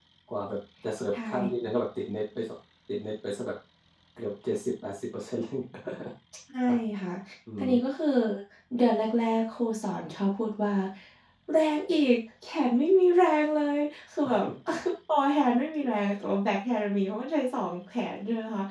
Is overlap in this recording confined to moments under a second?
Yes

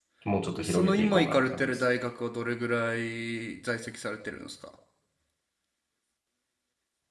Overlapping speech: Yes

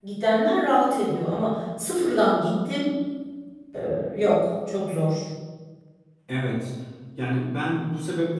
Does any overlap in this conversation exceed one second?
No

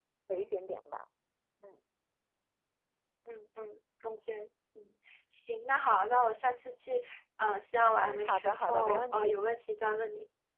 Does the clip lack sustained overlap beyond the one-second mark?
No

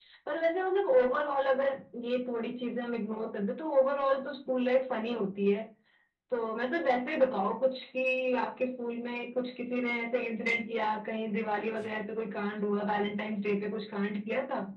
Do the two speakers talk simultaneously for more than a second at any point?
No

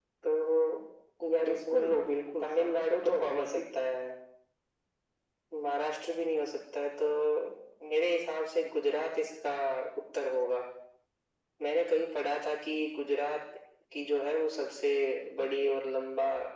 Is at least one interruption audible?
Yes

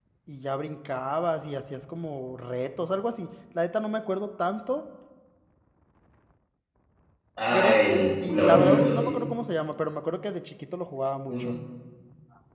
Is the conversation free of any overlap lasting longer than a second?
No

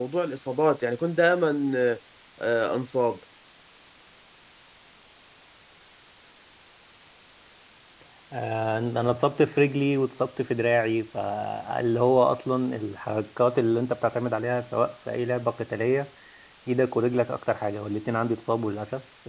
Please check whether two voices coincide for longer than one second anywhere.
No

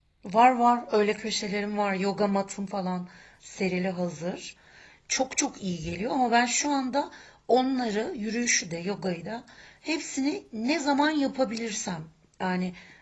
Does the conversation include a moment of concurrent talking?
No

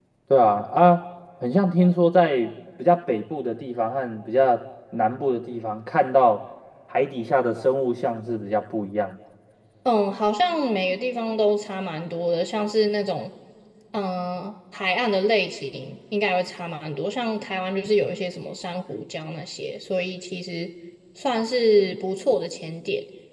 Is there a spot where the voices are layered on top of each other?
No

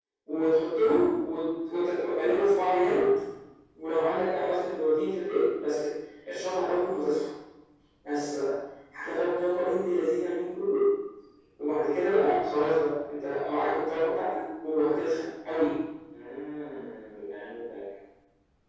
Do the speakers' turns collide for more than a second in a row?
No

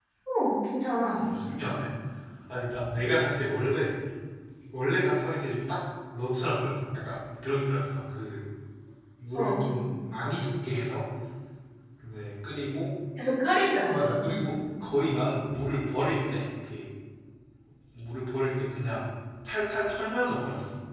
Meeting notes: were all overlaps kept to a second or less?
Yes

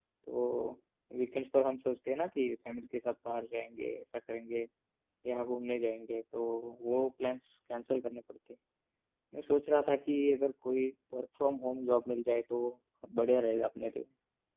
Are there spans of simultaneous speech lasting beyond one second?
No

